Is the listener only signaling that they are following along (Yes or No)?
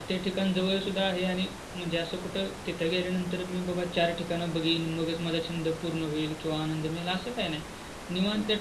Yes